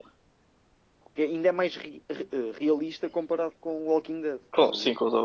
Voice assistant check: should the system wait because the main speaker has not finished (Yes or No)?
No